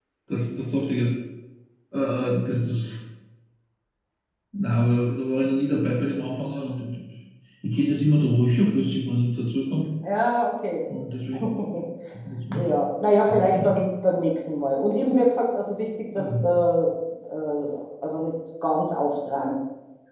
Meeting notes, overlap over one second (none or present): none